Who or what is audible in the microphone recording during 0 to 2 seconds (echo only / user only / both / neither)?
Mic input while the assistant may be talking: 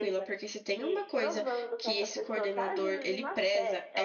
both